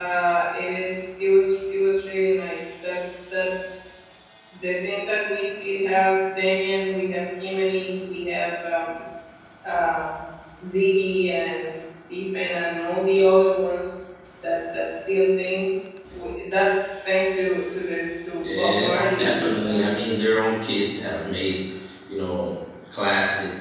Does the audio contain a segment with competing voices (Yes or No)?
Yes